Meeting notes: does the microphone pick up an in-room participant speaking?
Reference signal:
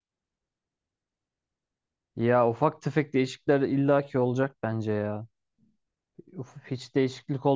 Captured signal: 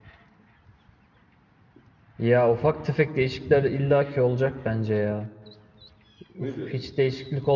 Yes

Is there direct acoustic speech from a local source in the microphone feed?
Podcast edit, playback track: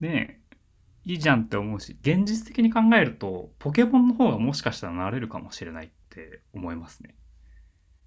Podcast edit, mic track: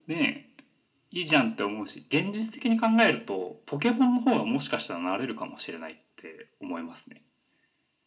No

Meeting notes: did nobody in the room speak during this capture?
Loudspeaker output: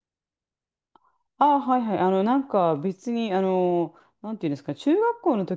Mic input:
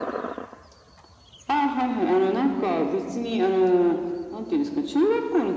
Yes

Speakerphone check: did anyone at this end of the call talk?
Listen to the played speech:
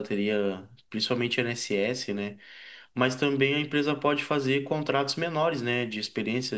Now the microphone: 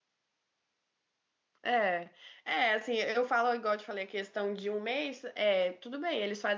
Yes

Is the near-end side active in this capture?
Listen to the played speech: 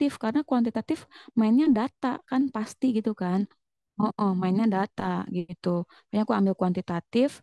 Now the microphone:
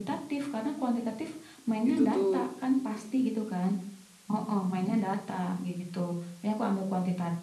Yes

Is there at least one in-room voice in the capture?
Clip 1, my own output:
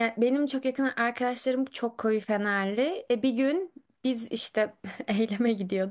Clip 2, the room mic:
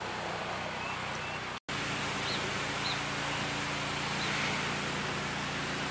No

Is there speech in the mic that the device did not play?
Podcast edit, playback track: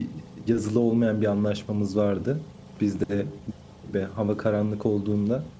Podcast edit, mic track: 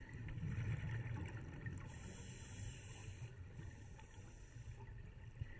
No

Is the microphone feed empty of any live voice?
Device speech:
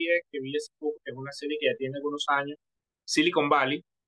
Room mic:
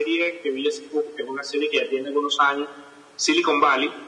Yes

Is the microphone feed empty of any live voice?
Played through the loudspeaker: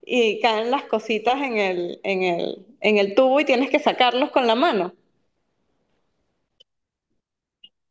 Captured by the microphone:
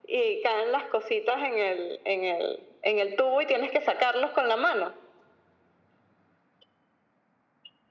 Yes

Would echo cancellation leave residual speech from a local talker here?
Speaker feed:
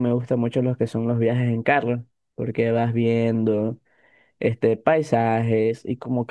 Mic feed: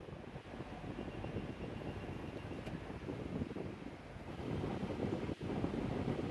No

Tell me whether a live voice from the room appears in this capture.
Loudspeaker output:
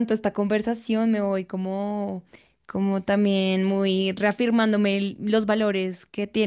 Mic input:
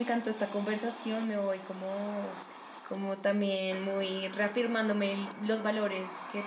No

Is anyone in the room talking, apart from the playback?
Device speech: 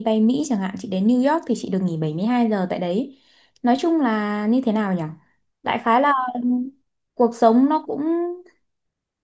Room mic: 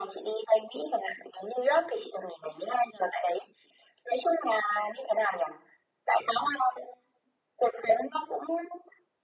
No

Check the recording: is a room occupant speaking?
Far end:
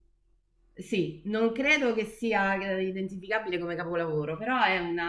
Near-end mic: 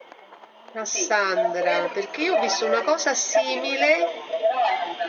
Yes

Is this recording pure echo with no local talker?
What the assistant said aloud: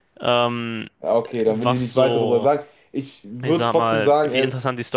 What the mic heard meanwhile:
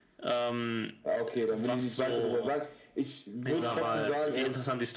No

